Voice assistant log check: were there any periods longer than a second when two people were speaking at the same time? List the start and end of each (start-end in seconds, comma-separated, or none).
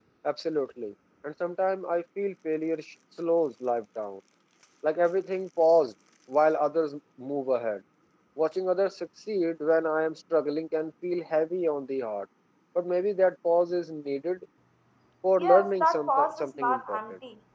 15.4-17.0